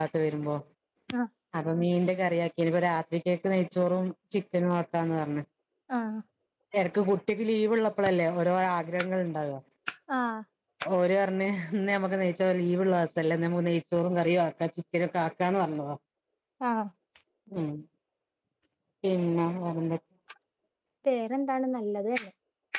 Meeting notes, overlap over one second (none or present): none